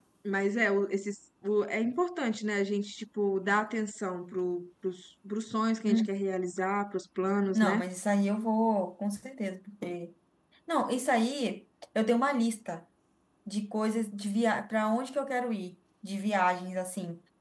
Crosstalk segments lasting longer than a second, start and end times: none

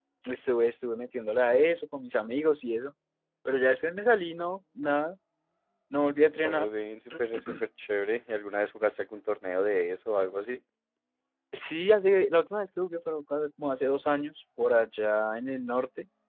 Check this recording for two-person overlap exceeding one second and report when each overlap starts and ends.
none

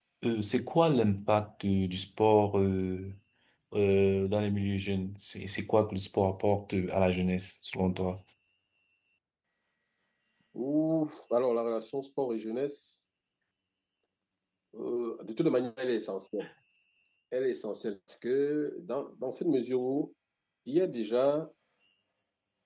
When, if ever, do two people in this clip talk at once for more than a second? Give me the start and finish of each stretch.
none

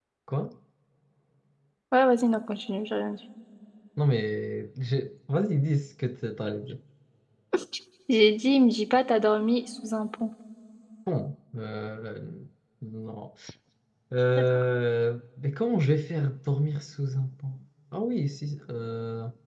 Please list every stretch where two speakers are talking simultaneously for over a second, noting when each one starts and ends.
none

